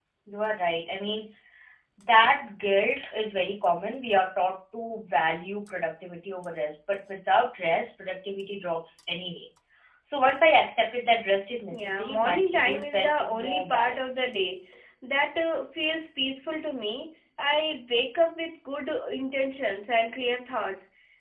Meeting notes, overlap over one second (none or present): present